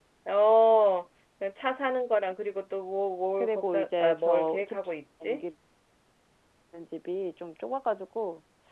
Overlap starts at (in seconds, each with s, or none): 3.4 s